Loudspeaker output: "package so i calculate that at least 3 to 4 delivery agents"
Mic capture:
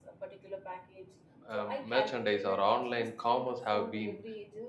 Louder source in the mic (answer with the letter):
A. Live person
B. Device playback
A